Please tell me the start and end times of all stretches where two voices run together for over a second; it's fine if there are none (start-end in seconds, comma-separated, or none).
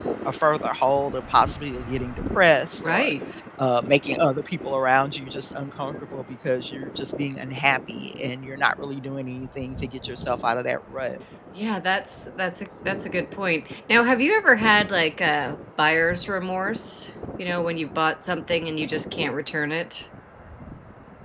none